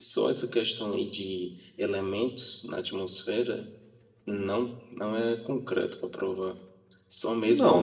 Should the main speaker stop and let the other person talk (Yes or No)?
Yes